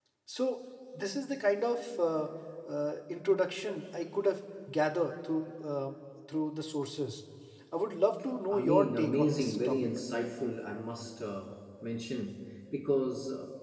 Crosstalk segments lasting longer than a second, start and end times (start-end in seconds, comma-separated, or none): 8.5-9.8